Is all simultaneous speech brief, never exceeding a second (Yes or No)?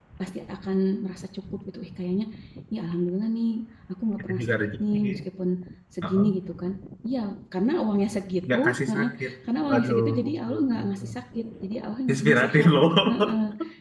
No